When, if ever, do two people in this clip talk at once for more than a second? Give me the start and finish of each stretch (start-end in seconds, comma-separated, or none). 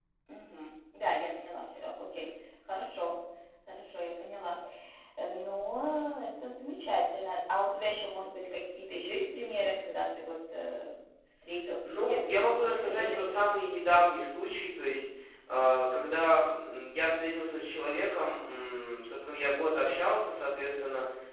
11.8-13.4